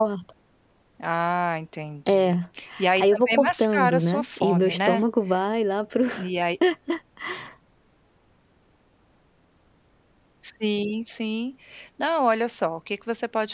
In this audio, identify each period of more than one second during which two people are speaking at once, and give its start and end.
2.9-5.0

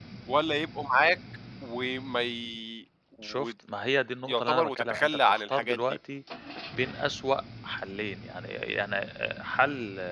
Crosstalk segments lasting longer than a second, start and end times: 4.3-5.8

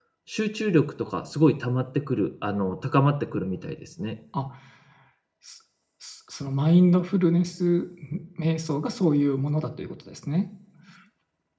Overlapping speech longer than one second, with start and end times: none

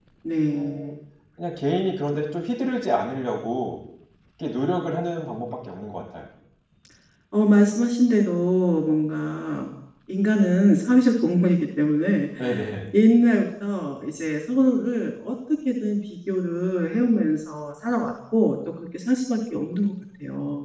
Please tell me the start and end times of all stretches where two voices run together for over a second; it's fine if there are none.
none

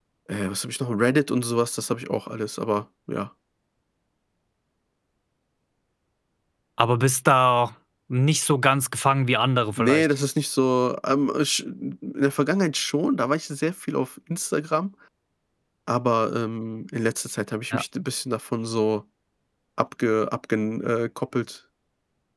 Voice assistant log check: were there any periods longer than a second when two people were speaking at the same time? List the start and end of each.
none

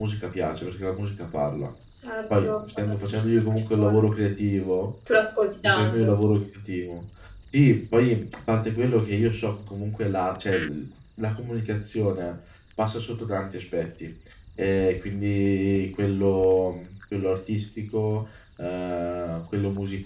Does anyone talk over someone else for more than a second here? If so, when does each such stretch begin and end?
2.4-4.0

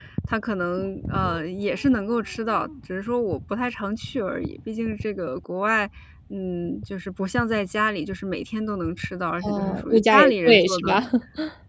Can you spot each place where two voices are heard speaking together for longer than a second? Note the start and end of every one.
9.4-11.0

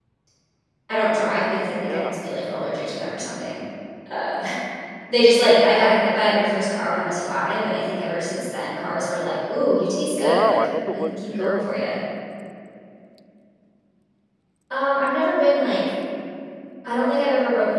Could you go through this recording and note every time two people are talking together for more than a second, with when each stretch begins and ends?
10.1-11.9

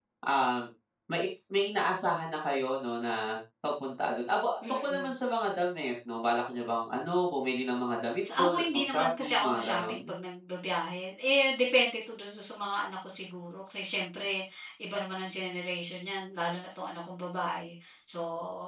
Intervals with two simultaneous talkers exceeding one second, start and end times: 8.4-10.1

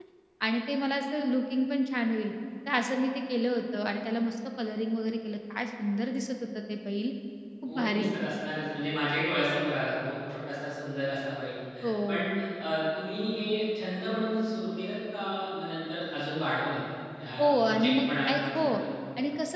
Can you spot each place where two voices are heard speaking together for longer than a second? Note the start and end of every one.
17.4-18.8

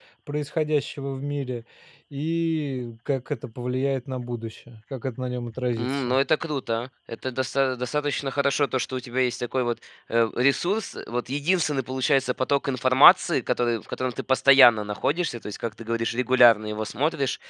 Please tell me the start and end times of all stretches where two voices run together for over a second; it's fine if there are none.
none

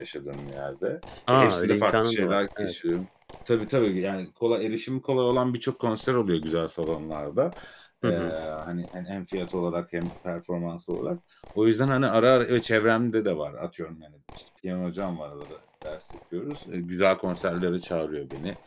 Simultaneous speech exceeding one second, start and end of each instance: 1.3-2.7

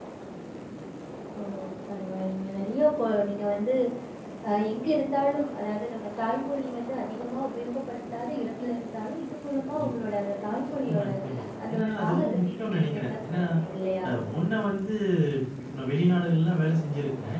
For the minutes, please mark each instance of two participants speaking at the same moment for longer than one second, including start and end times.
11.7-13.4

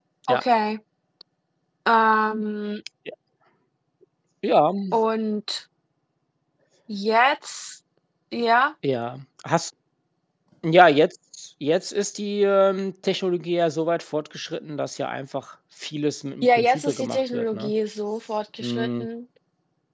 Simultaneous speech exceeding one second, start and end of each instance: 16.4-17.7

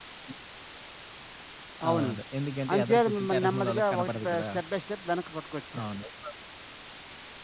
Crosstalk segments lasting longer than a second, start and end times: 2.7-4.5

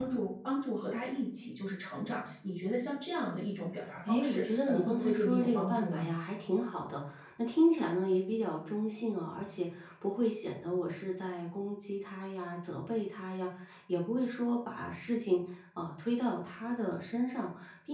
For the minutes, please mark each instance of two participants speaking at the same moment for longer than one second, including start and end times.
4.1-6.0

